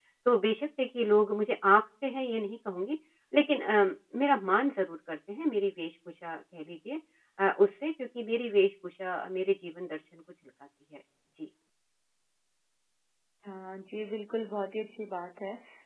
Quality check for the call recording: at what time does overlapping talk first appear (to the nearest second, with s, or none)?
none